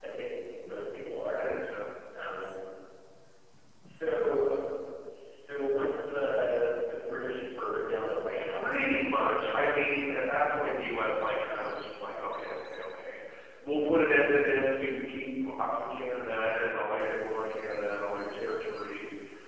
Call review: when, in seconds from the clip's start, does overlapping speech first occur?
8.4 s

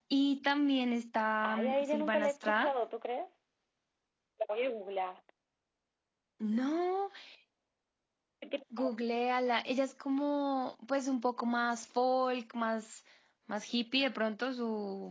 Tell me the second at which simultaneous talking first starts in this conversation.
1.4 s

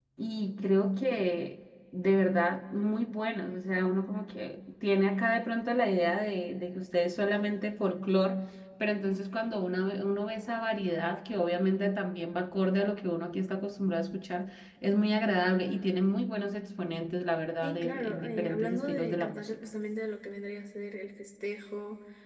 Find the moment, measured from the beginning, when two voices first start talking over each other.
17.6 s

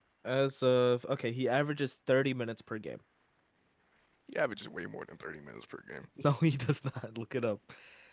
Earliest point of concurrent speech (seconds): none

